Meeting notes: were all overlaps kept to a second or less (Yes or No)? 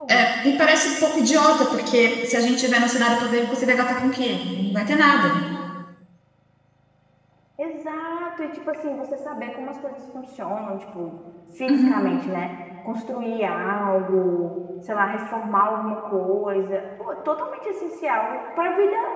Yes